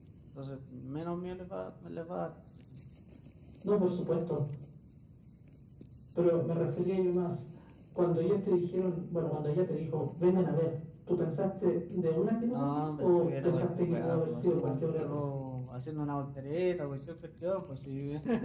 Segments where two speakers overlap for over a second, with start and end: 12.5-15.2

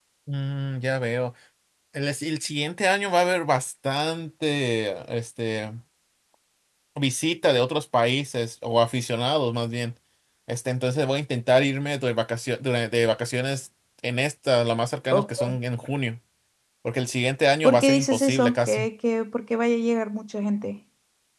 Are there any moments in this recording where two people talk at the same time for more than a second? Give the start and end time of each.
17.6-18.9

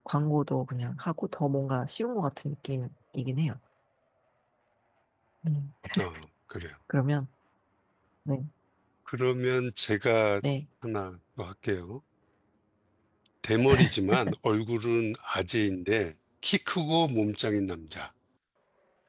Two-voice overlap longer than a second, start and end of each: none

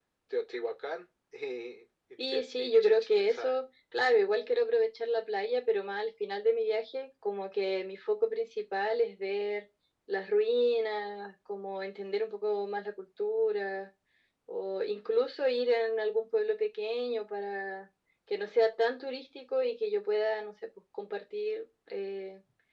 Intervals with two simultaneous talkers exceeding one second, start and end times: 2.2-3.5

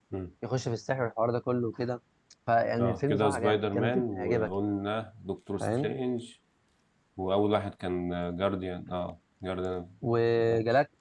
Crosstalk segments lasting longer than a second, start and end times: 2.8-4.5

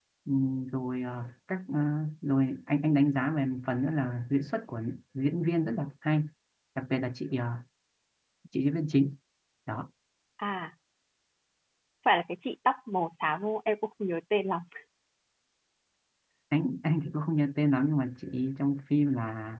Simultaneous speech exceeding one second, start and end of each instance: none

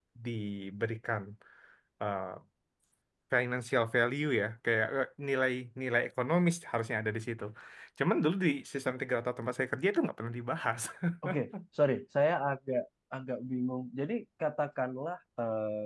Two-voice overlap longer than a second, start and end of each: none

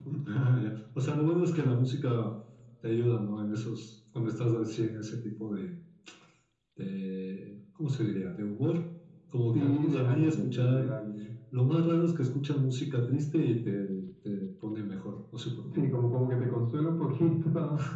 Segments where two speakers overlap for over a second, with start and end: 9.5-10.8

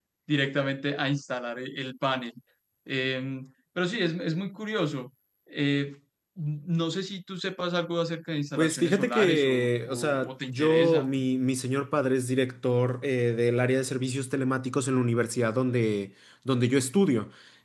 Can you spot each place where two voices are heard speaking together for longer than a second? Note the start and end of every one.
8.6-11.1

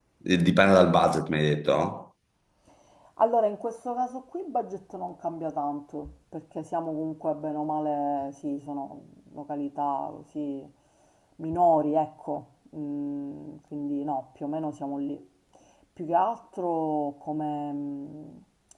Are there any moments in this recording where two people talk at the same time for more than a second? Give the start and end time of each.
none

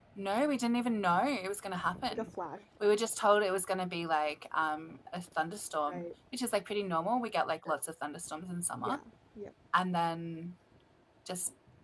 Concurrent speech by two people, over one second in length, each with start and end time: none

